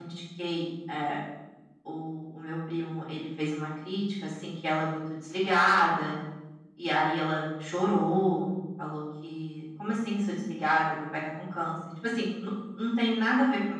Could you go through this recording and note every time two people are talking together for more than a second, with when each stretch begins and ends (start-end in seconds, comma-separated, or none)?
none